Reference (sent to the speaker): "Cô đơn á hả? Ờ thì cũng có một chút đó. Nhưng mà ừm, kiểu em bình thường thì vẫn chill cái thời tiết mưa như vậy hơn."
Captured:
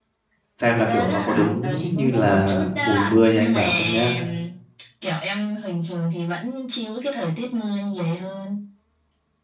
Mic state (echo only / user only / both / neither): both